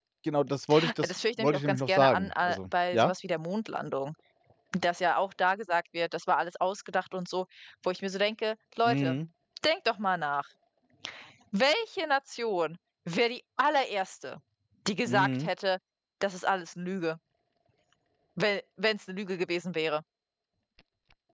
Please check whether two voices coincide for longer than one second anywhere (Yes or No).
Yes